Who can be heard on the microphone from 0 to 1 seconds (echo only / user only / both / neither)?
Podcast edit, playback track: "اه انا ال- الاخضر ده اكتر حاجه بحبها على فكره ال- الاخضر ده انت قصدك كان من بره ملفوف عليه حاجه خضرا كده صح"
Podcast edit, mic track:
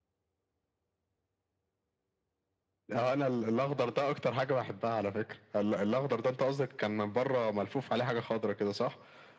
neither